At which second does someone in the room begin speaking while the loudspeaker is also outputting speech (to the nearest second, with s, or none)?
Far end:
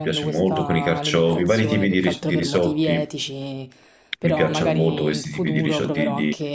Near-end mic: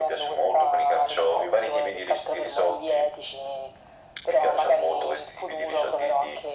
none